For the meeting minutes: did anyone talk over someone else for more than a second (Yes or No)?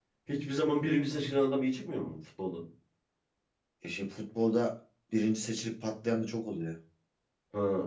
No